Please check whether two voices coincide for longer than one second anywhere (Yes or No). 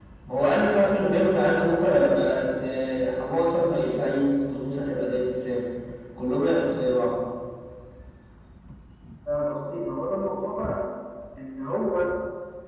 No